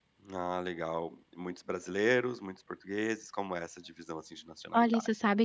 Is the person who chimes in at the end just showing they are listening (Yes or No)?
No